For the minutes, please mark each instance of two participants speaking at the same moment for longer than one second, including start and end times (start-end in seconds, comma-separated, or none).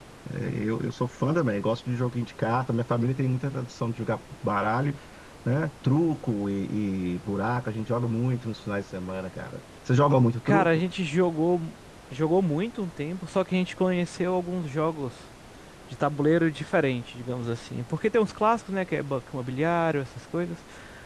none